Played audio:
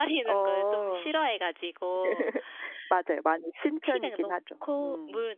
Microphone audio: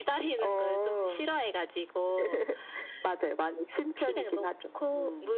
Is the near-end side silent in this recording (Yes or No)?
Yes